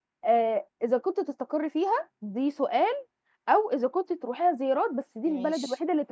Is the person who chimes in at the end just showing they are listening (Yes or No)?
Yes